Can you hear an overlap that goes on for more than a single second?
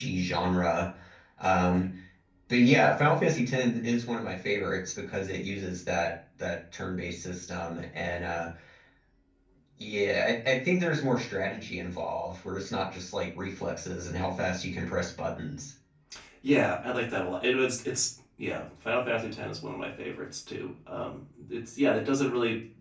No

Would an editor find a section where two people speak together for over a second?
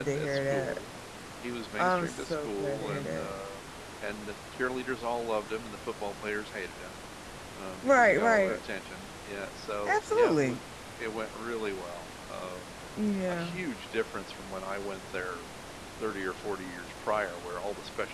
Yes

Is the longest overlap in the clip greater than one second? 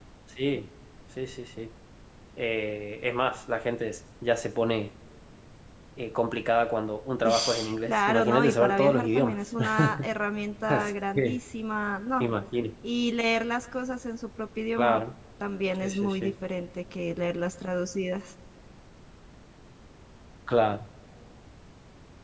Yes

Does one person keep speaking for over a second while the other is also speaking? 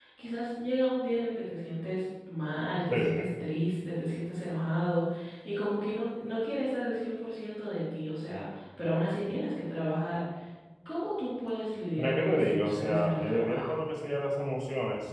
Yes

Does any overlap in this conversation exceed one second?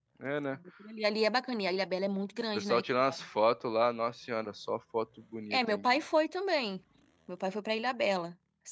No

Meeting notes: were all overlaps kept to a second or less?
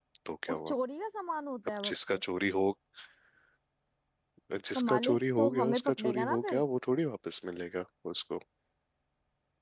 No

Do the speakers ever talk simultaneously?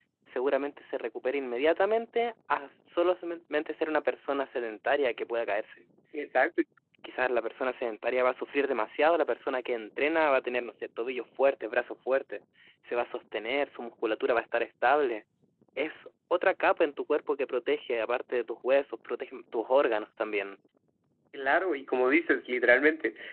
No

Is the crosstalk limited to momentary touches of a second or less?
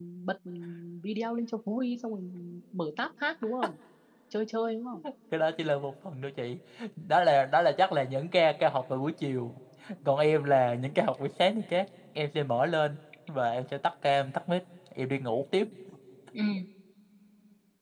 Yes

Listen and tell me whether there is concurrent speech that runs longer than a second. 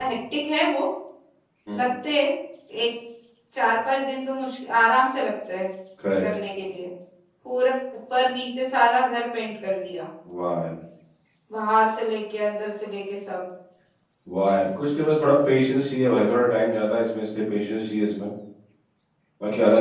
No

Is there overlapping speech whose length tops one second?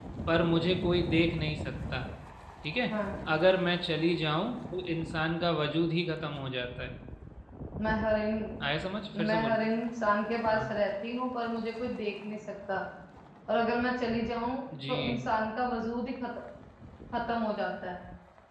No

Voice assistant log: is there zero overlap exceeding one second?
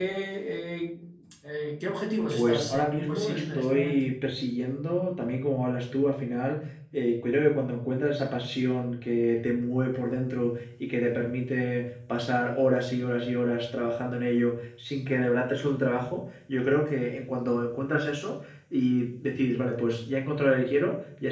No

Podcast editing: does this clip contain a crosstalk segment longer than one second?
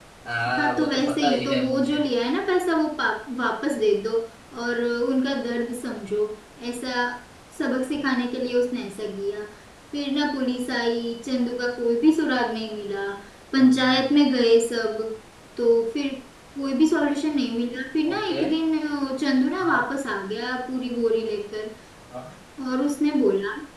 Yes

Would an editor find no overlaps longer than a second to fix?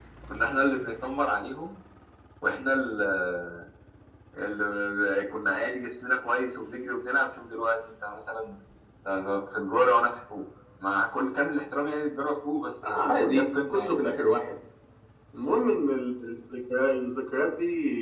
No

